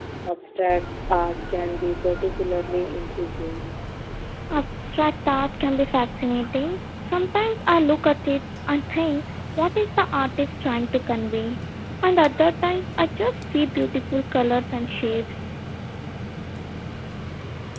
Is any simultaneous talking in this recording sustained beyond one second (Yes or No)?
No